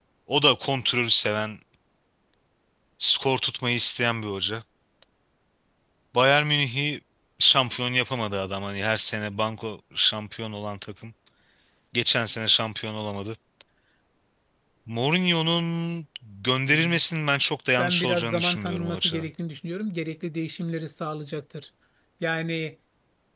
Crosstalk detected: Yes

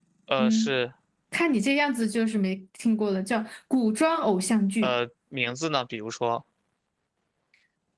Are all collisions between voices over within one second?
Yes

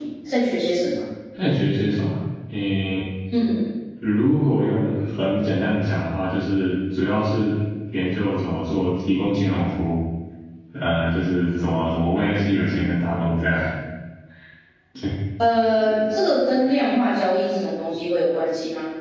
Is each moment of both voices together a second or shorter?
Yes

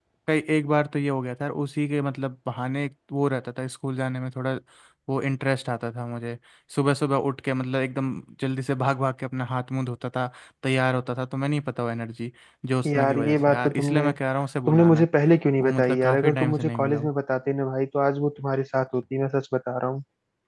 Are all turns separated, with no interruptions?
No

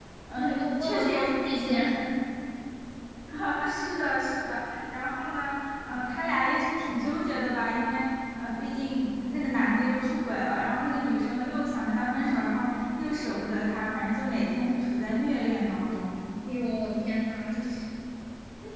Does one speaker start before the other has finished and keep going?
Yes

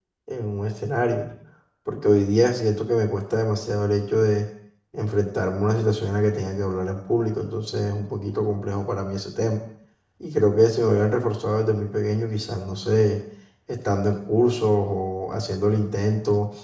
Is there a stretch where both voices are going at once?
No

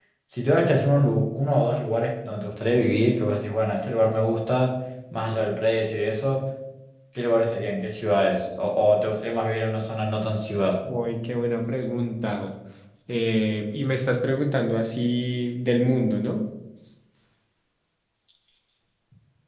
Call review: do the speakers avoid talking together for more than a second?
Yes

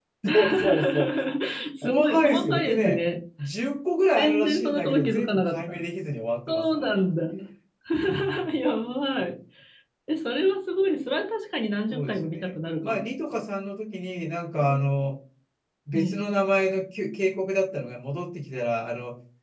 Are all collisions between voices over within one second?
No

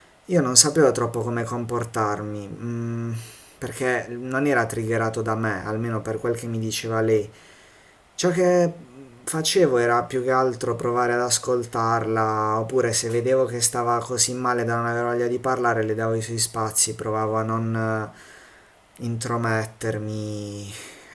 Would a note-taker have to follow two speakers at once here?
No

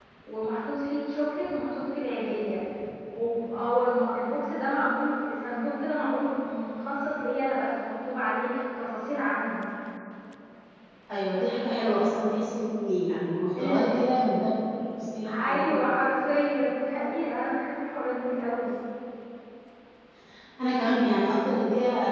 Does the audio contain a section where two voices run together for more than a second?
No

